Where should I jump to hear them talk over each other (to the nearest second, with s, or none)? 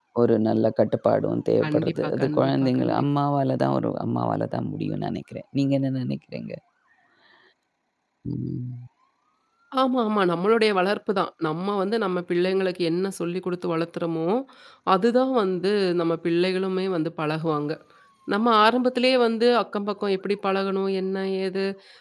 2 s